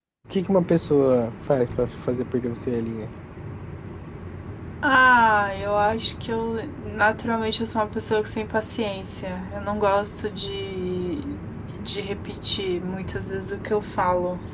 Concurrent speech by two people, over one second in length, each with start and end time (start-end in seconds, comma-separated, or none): none